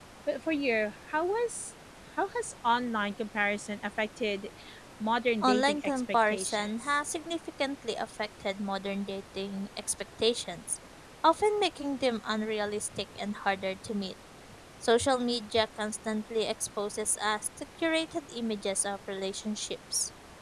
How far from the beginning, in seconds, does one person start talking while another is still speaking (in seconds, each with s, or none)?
5.4 s